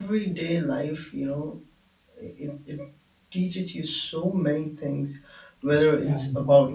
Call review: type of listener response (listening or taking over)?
listening